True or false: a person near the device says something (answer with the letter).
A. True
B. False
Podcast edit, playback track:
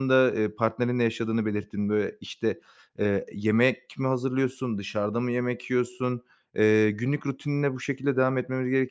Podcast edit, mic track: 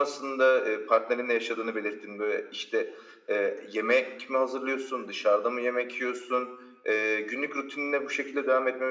B